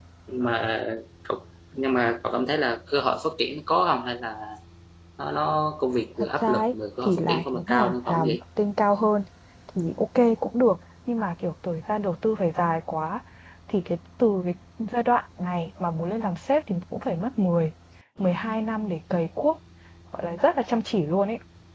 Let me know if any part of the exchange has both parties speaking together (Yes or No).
Yes